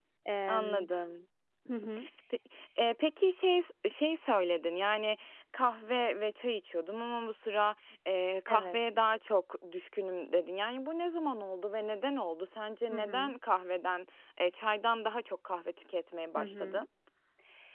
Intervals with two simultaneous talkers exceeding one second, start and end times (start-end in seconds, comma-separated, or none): none